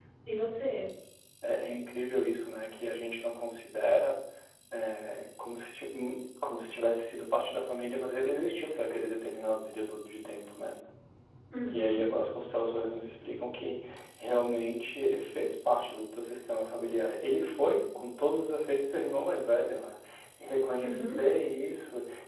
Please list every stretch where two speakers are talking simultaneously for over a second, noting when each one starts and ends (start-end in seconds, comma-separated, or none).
none